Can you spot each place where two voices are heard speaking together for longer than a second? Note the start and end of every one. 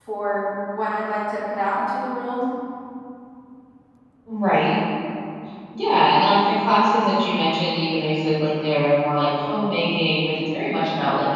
none

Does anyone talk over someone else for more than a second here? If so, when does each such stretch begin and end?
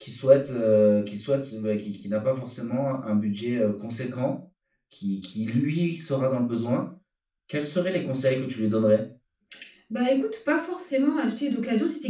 none

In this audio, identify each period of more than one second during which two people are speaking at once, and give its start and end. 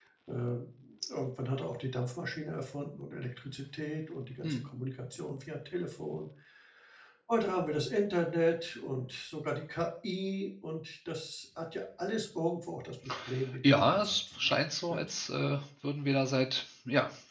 13.6-15.1

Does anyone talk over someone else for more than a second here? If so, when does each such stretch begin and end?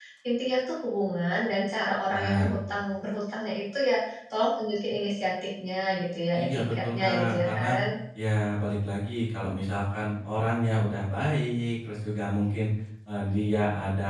6.4-7.6

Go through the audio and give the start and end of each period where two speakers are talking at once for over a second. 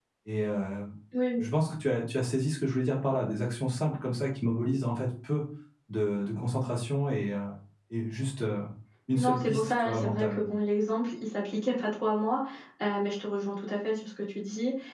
9.1-10.4

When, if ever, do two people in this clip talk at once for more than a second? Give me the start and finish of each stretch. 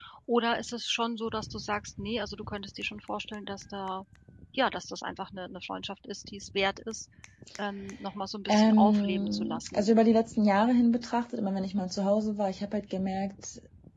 8.5-9.9

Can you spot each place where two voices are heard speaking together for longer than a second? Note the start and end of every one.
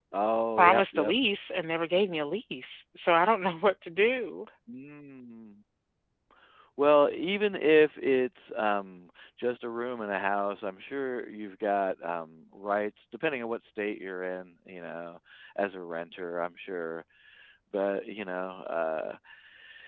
none

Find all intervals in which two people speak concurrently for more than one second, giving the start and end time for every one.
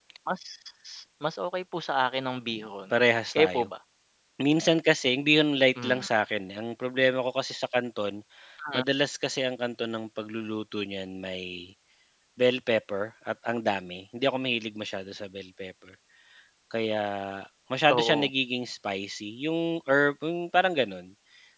none

